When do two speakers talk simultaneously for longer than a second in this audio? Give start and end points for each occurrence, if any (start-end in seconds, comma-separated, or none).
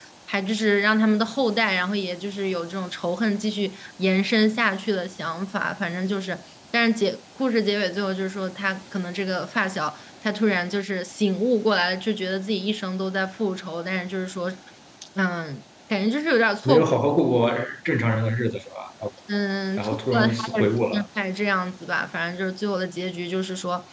19.8-21.1